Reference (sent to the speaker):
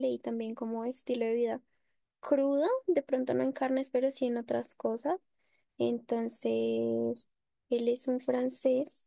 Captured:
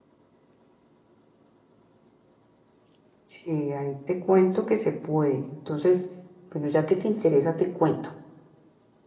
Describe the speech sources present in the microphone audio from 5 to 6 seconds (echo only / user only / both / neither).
user only